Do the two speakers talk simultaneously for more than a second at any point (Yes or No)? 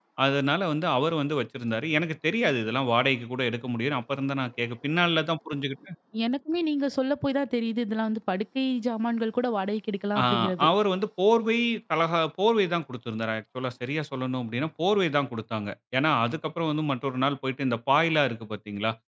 No